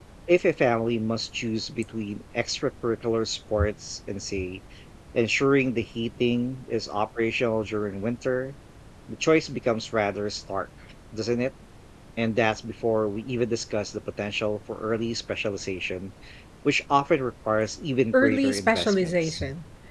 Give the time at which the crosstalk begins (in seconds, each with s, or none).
18.1 s